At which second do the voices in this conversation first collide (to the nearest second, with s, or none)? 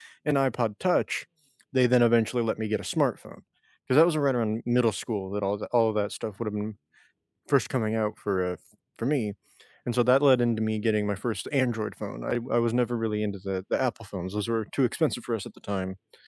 none